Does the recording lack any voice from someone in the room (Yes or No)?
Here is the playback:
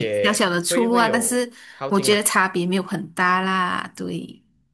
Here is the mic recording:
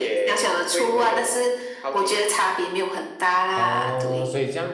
No